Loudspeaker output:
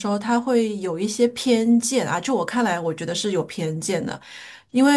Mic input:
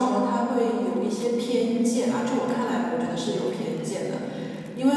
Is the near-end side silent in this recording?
Yes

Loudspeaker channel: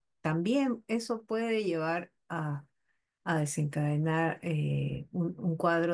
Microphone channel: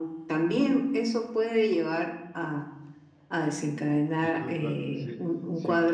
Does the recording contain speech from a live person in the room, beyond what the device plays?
Yes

